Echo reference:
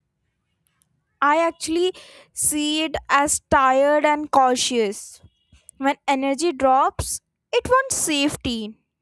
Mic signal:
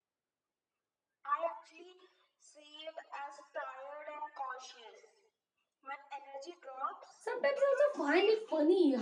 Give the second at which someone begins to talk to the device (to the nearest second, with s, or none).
7 s